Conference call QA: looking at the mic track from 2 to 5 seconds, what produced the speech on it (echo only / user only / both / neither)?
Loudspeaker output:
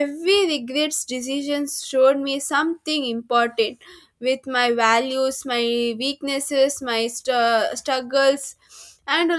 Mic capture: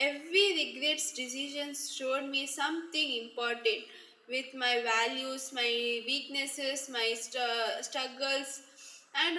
echo only